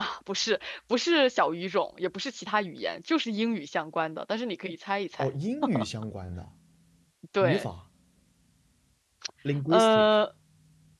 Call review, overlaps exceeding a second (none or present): none